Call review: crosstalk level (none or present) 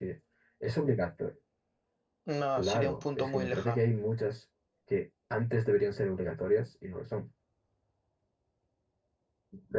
present